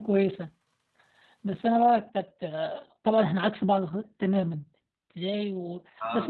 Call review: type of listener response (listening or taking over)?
listening